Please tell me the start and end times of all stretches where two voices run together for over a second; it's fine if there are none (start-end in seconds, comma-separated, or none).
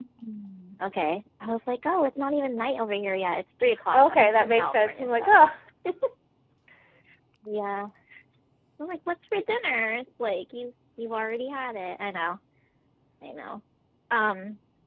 3.9-5.4